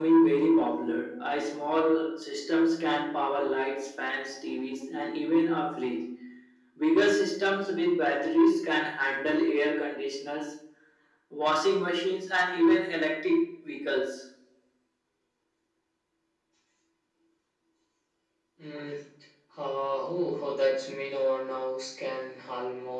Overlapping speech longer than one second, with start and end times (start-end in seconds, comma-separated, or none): none